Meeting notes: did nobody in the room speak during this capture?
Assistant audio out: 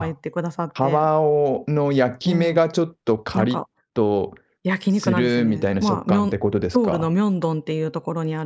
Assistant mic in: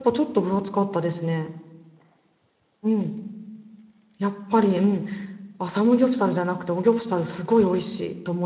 No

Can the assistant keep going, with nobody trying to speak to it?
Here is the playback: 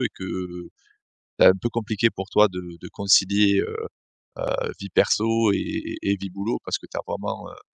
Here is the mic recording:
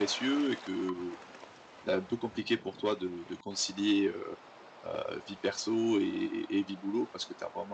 Yes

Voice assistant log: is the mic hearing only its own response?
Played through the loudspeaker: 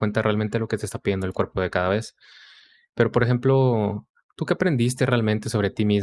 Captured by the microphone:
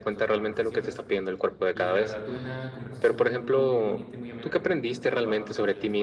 No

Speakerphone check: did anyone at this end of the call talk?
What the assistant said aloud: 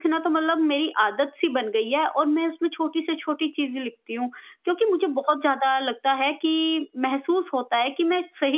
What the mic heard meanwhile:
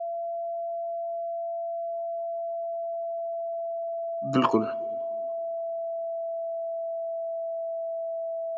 Yes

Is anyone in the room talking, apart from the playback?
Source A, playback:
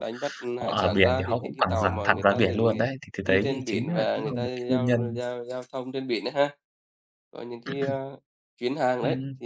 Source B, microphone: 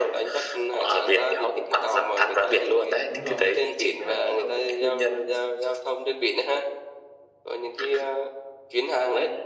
Yes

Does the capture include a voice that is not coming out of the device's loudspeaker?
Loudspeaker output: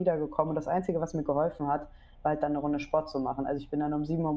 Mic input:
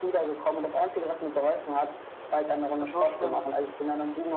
Yes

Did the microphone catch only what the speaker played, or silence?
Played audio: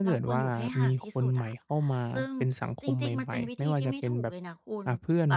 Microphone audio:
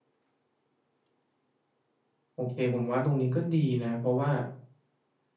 No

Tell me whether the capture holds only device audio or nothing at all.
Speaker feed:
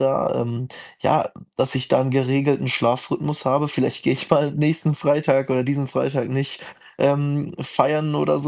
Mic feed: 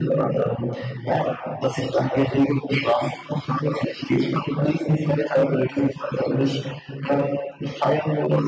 Yes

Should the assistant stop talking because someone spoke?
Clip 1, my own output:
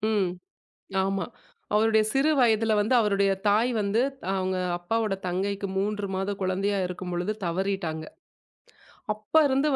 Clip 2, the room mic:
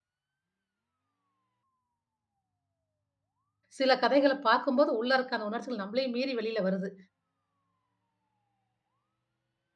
Yes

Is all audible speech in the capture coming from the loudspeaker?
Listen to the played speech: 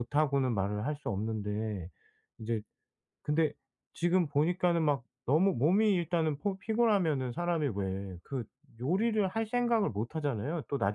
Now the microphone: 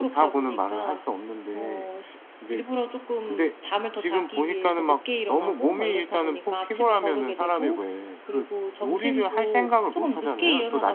No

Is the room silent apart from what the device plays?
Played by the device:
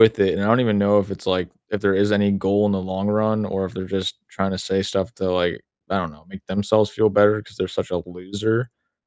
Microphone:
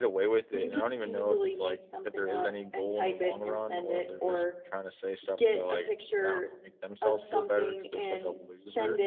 No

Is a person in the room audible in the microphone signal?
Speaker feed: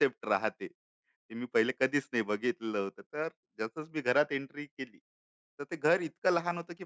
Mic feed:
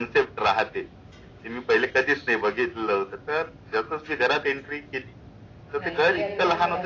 Yes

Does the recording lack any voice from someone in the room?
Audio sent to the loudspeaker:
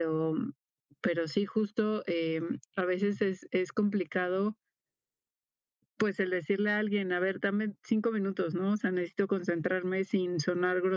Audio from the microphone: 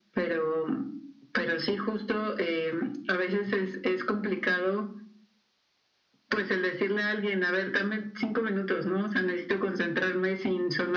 Yes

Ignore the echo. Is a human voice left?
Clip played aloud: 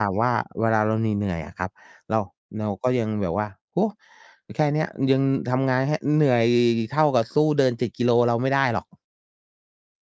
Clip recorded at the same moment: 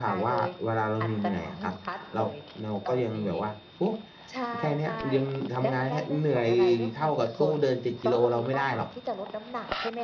Yes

